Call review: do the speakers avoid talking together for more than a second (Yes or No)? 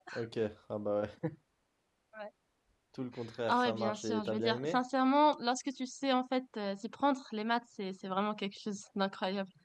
No